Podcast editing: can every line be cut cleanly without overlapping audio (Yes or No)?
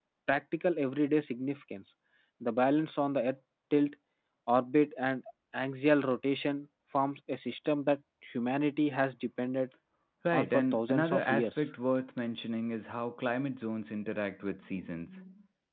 No